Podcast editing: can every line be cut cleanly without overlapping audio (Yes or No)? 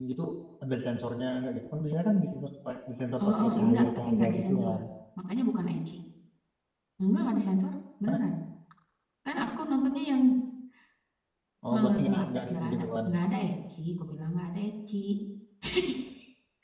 No